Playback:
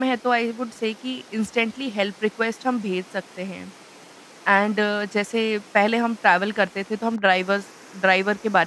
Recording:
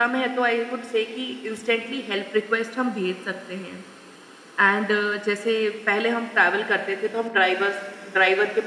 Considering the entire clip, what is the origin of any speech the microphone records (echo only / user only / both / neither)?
echo only